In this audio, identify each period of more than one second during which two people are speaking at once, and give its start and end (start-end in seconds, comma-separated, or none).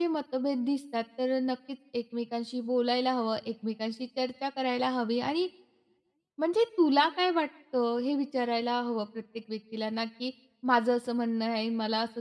none